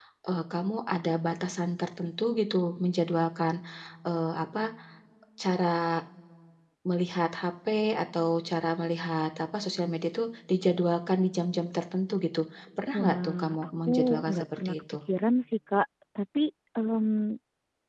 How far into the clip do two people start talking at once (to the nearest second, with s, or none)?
13 s